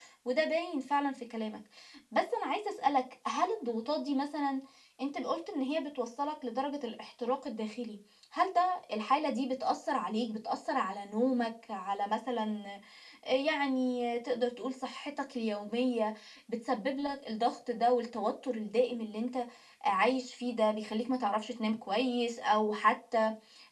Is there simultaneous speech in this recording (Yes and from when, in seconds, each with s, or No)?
No